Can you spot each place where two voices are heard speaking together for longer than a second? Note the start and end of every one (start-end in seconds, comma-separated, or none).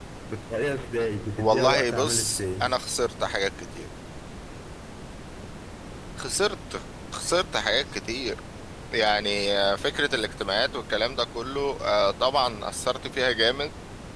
1.4-2.7